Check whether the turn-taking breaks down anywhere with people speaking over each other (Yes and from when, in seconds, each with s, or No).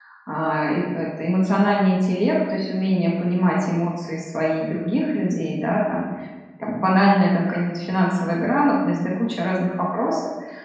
No